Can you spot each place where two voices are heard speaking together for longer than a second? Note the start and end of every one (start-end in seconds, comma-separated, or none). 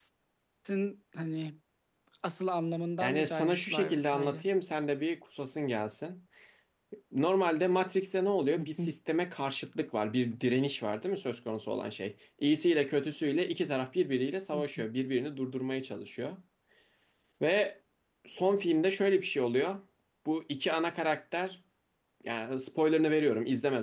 3.0-4.4